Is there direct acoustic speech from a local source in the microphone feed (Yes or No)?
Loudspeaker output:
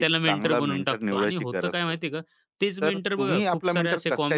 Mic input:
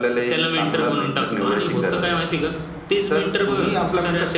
No